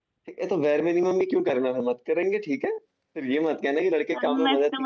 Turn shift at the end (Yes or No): Yes